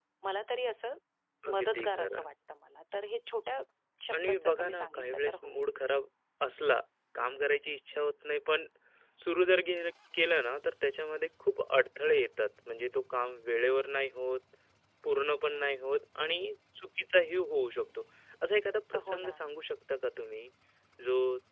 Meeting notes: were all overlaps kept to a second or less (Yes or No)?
No